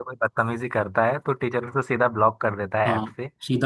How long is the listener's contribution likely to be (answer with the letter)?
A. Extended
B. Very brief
A